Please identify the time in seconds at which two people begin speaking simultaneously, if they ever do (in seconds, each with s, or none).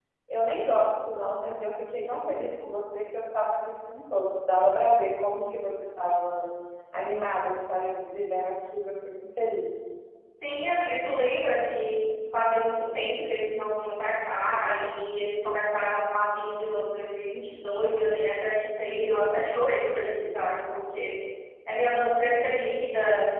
none